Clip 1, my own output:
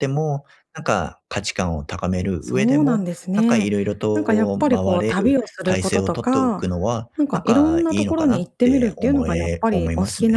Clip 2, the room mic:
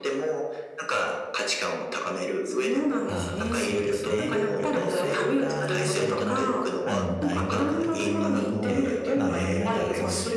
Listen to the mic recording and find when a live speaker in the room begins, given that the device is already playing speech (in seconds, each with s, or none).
3.0 s